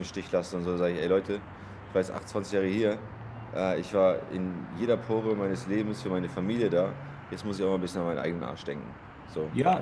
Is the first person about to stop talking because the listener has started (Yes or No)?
Yes